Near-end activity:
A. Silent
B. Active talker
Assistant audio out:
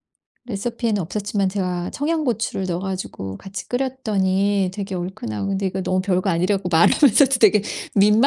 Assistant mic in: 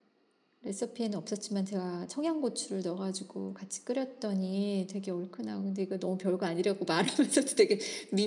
A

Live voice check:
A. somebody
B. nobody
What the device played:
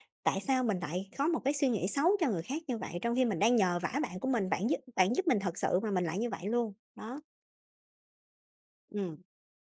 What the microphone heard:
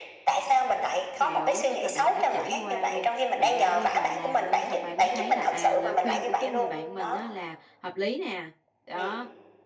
A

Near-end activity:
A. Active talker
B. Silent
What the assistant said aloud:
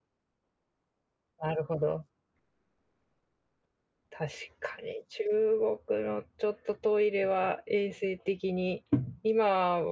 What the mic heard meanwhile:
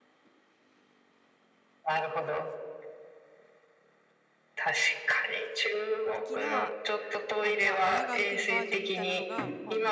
A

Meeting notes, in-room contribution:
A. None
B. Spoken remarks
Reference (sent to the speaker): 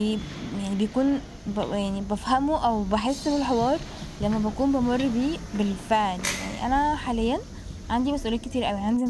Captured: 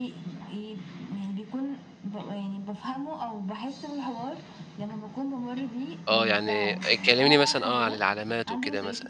B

